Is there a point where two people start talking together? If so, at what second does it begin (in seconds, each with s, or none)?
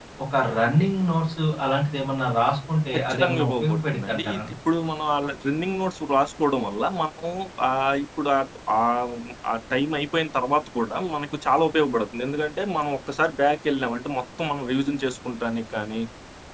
2.9 s